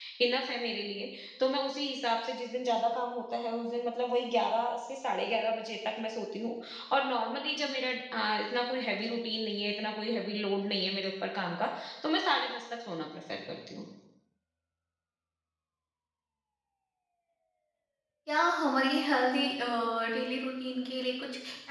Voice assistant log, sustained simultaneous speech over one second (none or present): none